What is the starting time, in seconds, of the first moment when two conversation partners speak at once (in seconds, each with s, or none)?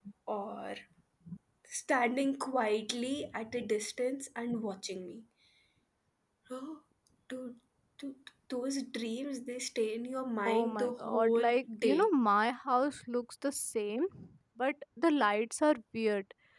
10.4 s